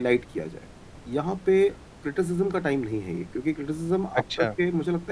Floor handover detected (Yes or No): No